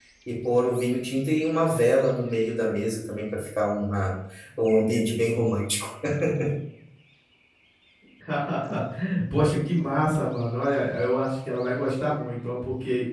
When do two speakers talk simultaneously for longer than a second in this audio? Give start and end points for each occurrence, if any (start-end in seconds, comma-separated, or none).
none